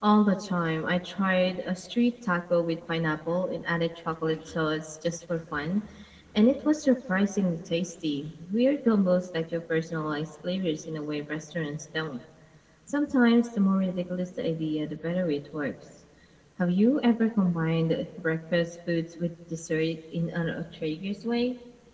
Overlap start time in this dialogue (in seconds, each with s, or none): none